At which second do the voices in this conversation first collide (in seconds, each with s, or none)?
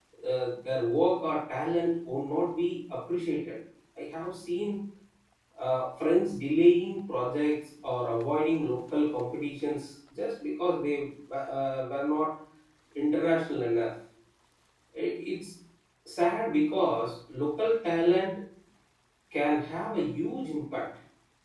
none